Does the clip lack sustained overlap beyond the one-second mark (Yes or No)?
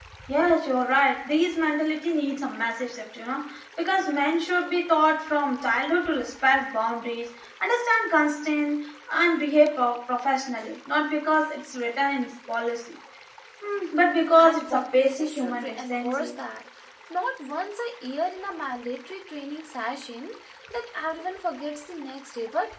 No